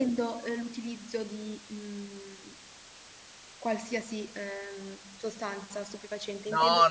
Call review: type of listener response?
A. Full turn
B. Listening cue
A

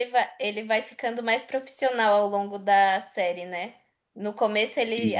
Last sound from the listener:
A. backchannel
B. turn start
A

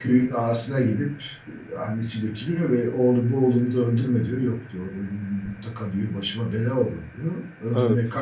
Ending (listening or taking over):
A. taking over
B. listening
B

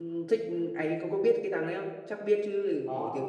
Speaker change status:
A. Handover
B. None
A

